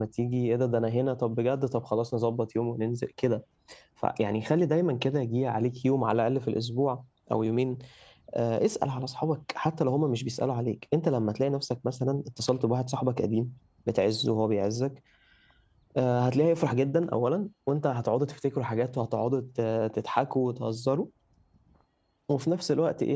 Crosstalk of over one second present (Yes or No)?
No